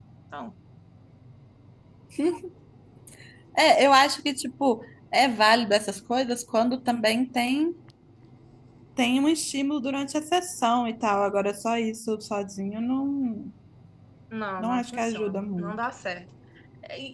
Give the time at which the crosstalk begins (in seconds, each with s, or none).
14.6 s